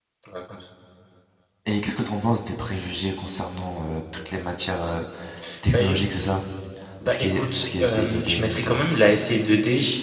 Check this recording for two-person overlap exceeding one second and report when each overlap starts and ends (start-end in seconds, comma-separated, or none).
7.0-8.8